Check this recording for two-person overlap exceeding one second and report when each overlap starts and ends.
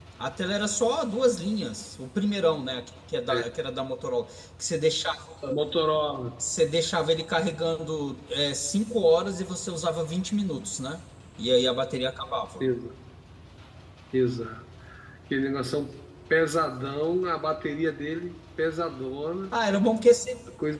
none

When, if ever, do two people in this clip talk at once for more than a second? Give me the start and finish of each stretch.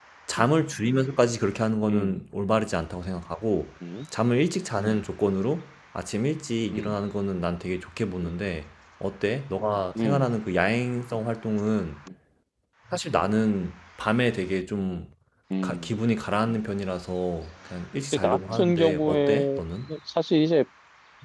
18.1-19.5

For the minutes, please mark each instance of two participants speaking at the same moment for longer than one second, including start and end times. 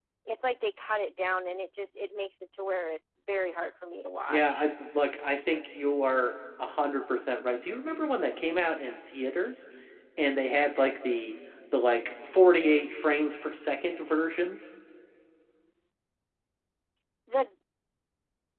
none

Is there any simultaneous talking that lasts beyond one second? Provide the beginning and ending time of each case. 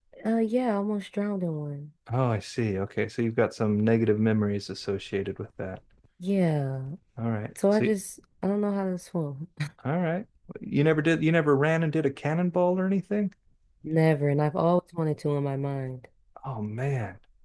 none

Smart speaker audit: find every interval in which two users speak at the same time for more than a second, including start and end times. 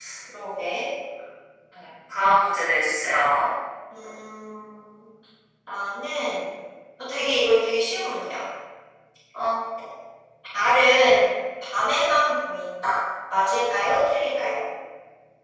none

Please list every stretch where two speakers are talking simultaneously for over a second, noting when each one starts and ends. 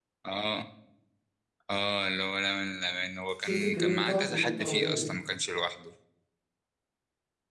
3.4-5.1

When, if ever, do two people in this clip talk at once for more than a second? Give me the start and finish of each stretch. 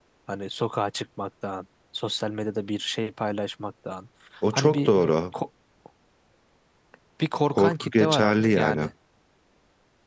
7.5-8.9

